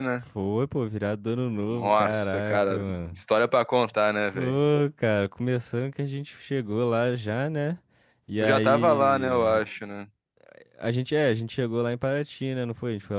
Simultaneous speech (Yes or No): Yes